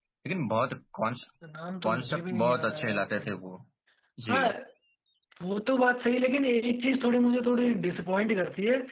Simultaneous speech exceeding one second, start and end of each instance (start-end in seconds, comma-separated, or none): 1.8-3.2